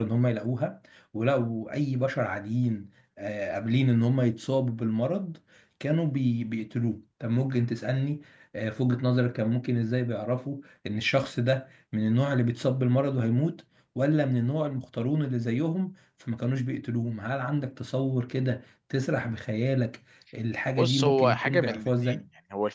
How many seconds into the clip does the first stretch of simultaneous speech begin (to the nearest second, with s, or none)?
21 s